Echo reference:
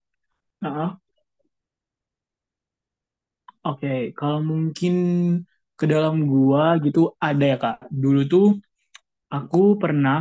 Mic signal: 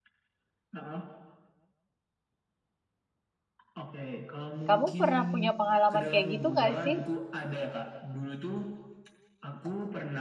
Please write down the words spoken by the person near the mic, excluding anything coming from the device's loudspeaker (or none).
Kamu pernah punya pengalaman kayak gitu nggak sih?